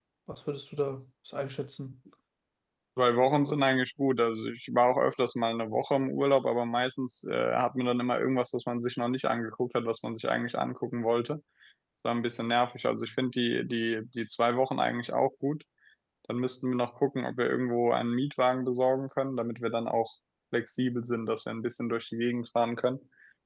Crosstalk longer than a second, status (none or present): none